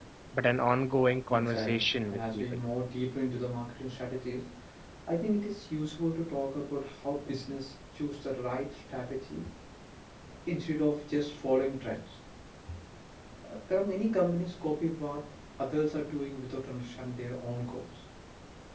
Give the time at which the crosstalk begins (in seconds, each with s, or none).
1.3 s